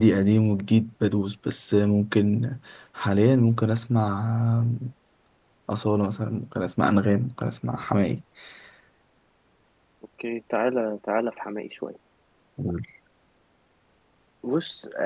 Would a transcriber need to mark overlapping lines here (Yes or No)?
No